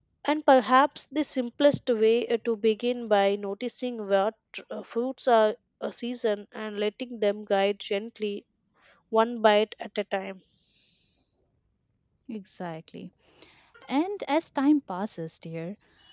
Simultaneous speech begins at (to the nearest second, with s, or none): none